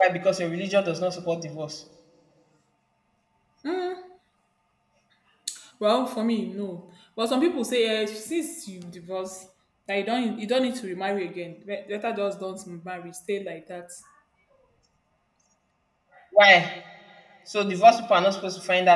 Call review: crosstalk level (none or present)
none